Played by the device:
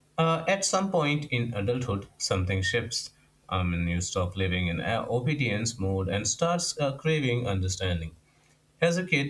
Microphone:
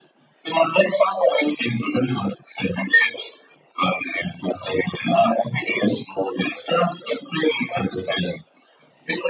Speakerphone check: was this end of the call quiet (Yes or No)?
Yes